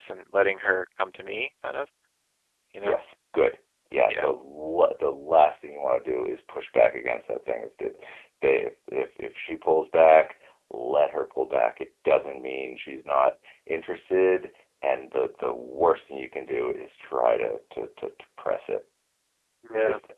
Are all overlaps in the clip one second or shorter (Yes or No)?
Yes